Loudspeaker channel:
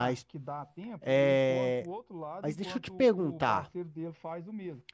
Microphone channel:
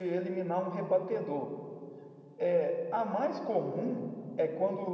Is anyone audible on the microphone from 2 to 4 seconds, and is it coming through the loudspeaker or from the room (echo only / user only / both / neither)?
user only